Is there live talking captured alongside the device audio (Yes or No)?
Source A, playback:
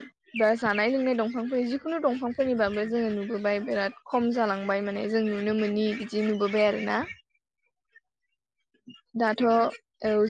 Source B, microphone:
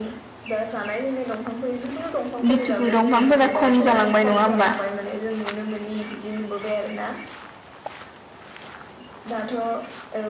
Yes